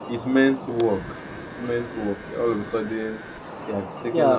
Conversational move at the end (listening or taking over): taking over